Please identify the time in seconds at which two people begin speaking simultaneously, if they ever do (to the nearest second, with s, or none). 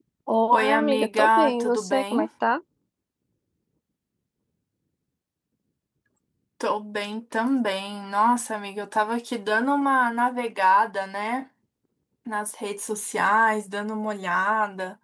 1 s